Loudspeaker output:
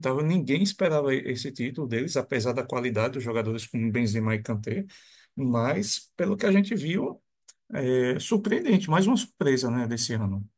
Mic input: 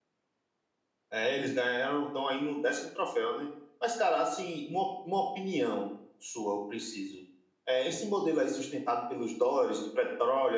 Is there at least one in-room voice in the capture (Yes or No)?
Yes